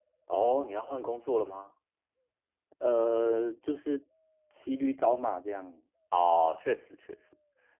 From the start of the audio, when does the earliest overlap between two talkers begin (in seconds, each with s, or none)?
none